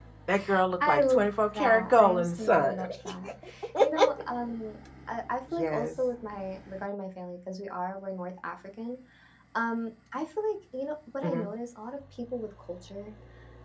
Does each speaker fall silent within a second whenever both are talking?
No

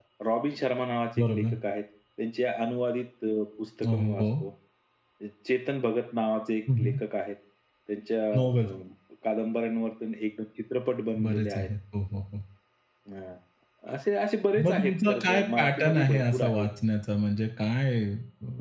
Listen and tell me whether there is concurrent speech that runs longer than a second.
Yes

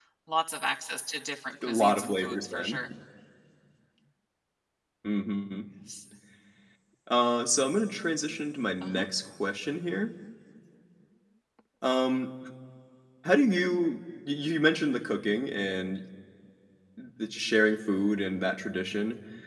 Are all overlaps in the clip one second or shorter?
No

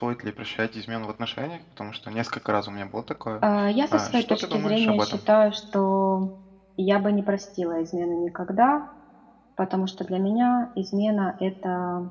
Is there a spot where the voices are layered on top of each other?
Yes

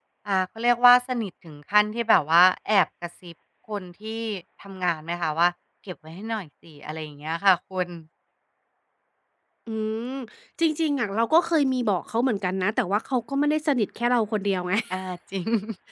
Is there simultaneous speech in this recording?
No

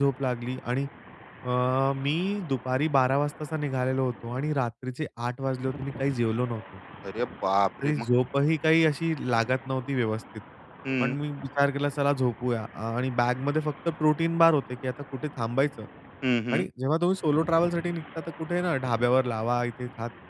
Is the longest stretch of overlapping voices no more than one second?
Yes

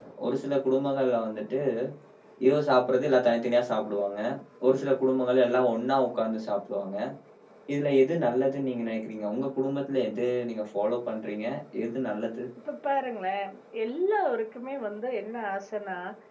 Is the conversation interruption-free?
Yes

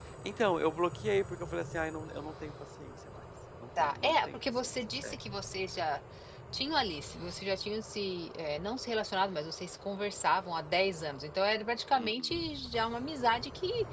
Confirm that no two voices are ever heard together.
No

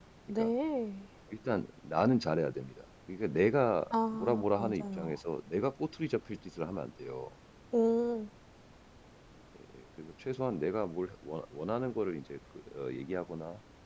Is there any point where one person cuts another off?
Yes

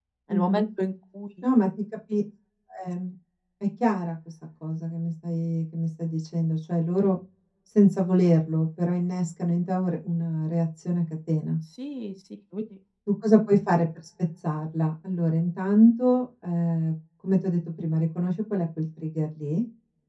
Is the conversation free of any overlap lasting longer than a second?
Yes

